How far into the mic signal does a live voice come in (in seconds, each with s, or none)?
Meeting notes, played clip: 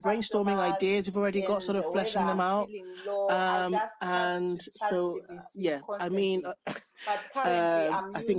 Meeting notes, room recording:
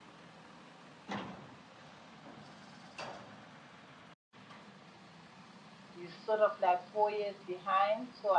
5.9 s